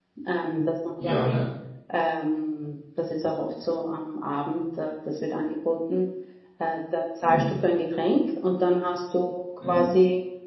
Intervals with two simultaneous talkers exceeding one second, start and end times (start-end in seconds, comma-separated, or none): none